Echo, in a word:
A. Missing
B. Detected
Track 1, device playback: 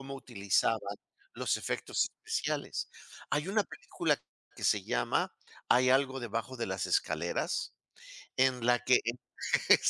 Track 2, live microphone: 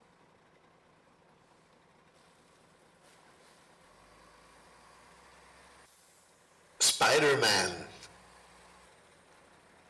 A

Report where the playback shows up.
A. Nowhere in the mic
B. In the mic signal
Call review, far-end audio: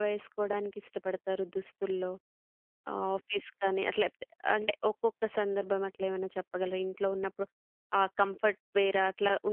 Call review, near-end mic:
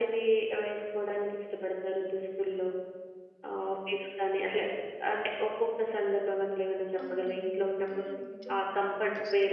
B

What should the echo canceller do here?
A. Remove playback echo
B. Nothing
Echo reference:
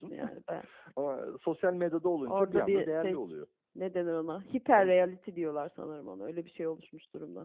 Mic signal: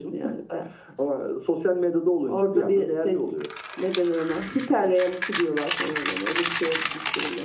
A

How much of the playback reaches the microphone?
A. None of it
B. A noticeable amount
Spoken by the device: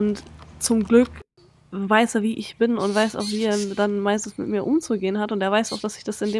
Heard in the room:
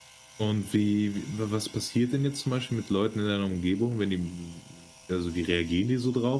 A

